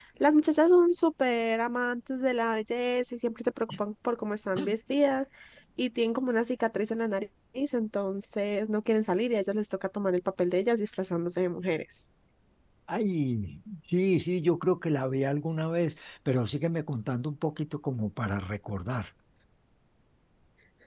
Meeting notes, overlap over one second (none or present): none